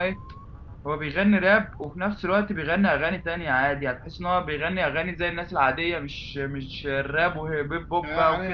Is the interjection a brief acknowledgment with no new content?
No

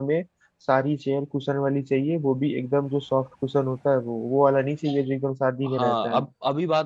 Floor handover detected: Yes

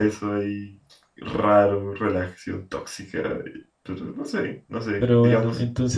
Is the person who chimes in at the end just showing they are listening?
No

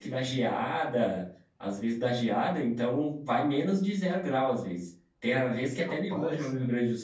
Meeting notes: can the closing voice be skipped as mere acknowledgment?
Yes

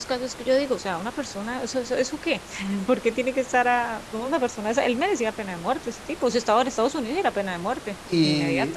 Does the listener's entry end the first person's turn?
Yes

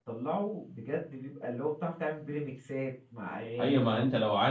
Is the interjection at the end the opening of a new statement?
Yes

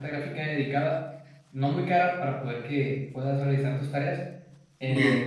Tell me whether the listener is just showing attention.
Yes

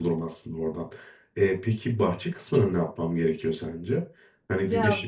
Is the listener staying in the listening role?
Yes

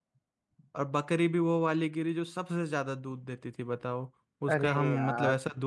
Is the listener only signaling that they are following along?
Yes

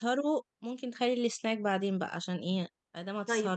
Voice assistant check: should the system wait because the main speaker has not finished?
No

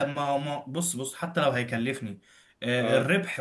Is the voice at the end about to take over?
No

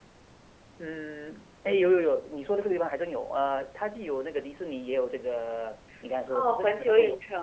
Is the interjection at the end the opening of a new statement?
Yes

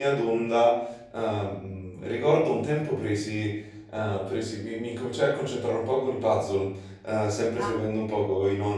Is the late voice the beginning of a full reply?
No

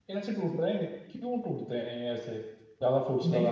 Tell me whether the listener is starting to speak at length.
Yes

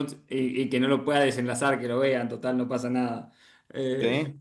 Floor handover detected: No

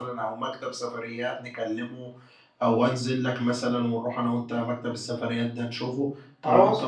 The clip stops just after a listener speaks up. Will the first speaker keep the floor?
No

